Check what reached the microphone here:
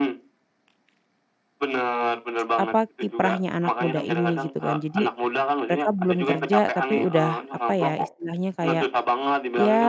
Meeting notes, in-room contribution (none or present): present